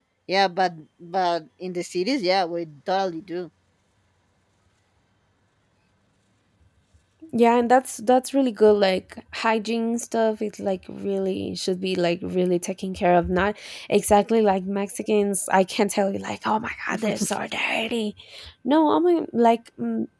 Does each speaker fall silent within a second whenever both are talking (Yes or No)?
Yes